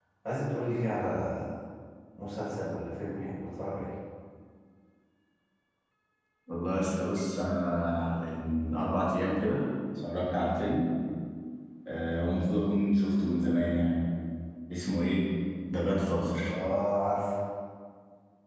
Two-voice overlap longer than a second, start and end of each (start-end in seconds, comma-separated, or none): none